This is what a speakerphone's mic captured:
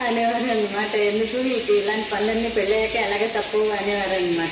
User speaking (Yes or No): No